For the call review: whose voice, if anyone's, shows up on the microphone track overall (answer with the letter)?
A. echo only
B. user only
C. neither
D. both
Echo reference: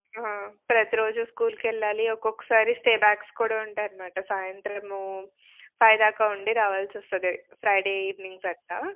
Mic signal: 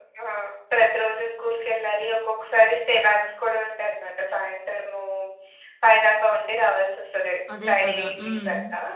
D